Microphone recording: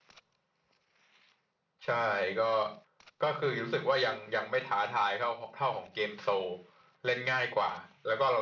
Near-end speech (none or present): none